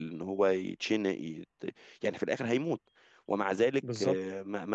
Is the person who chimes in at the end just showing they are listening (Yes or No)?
Yes